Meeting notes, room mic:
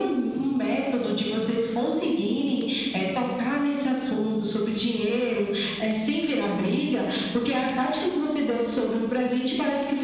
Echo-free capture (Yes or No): No